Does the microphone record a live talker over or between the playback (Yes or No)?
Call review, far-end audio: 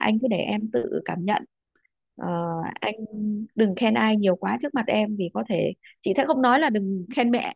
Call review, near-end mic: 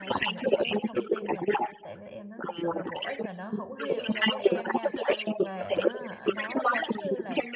Yes